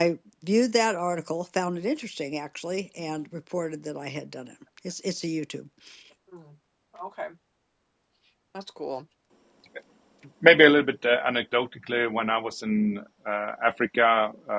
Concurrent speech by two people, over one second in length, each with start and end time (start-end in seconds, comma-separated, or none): none